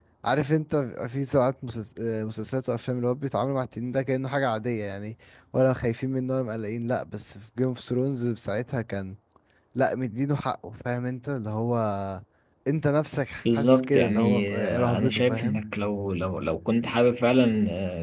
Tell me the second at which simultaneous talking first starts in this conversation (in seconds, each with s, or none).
13.5 s